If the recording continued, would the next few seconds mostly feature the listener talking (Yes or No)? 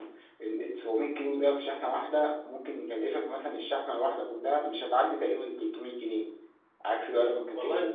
No